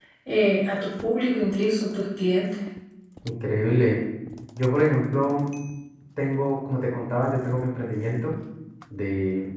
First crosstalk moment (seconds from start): none

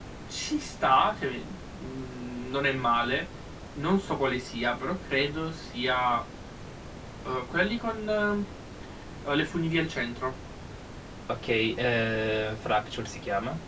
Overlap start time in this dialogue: none

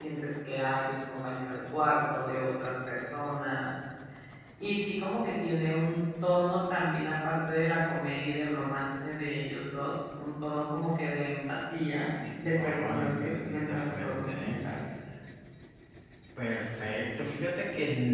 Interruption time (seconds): 13 s

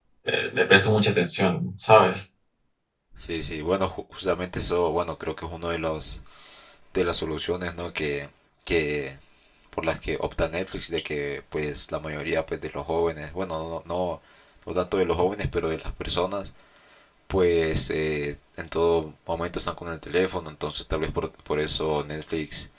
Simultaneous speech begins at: none

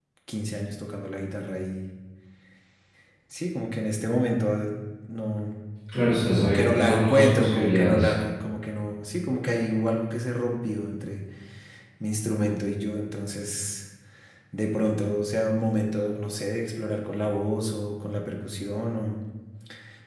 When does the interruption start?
6 s

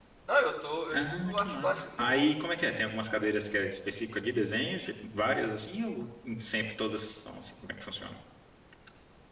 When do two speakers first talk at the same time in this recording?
1 s

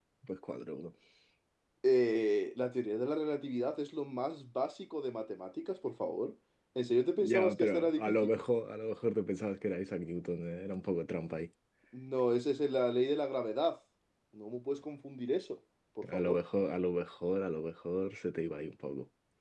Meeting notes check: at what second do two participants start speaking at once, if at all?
7 s

